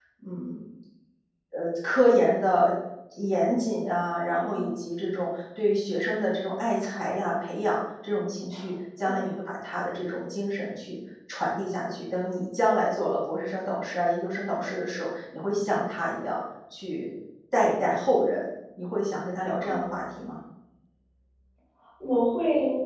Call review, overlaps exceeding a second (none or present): none